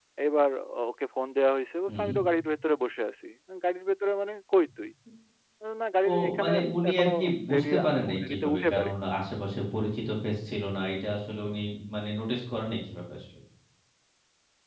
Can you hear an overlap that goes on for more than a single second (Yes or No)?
Yes